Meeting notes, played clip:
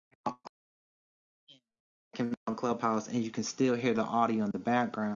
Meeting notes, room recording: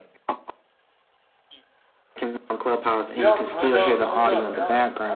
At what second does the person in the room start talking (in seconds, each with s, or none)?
3.2 s